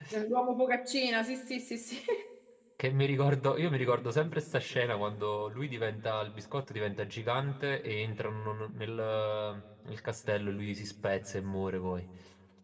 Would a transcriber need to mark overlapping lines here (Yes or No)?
No